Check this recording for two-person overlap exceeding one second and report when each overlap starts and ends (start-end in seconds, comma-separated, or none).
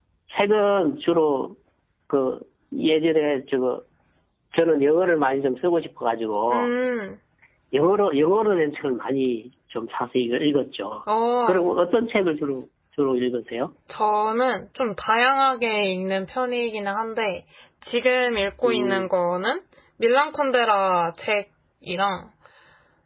none